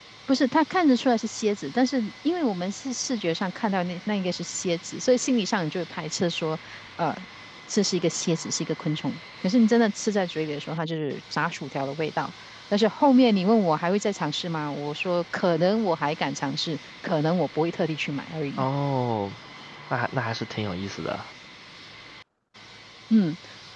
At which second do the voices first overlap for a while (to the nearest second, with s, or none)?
none